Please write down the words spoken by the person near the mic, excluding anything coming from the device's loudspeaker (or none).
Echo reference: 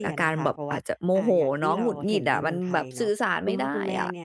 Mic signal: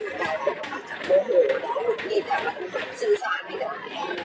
none